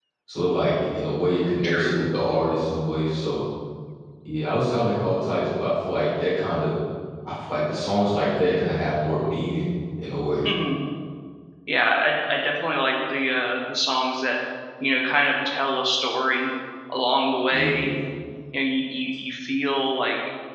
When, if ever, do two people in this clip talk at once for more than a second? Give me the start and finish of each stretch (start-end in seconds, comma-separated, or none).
none